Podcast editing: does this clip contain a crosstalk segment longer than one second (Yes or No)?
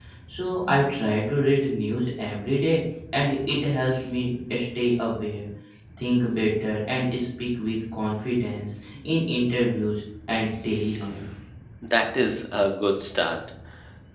No